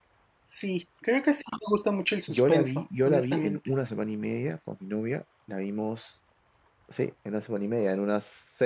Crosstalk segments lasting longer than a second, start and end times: 2.3-3.6

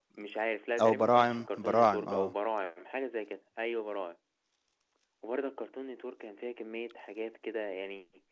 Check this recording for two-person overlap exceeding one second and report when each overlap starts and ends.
0.8-2.3

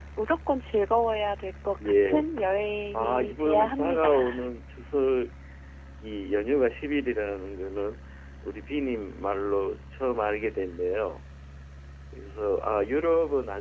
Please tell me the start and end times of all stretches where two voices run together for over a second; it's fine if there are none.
2.9-4.2

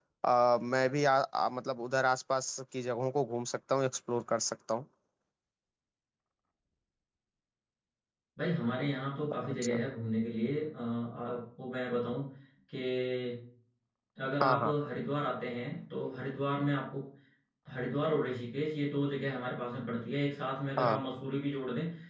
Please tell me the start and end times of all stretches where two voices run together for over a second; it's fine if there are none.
none

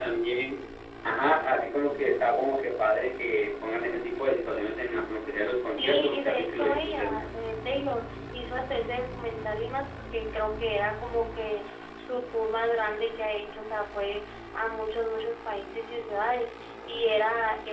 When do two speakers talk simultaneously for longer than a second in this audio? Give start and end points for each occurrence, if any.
5.8-7.2

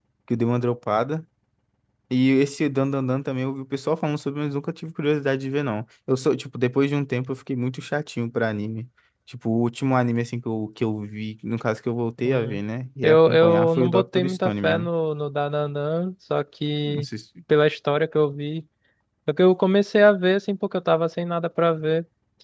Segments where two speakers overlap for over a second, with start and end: 13.0-14.9

